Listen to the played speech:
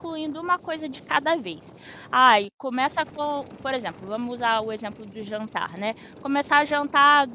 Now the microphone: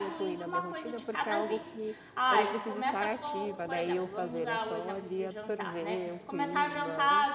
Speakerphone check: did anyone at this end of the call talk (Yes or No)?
Yes